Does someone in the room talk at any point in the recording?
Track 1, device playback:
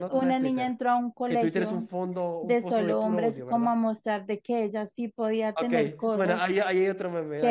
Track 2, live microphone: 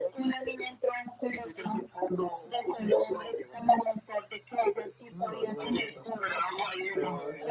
Yes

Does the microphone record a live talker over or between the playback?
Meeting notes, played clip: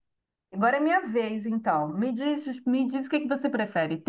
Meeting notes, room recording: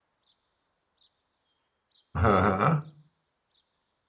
Yes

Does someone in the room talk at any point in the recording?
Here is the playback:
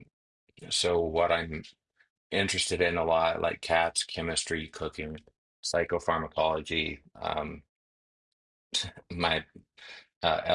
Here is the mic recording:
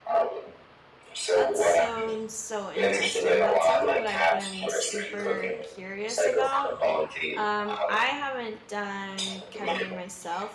Yes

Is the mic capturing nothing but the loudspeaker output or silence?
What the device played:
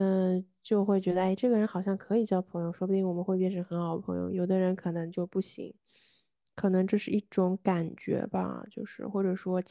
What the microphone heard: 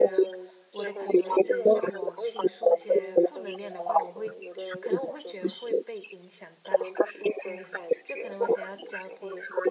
No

